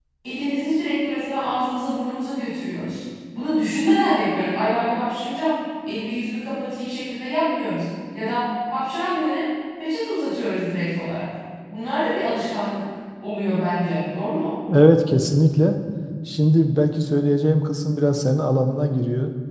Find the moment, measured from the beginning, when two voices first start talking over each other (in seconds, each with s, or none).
none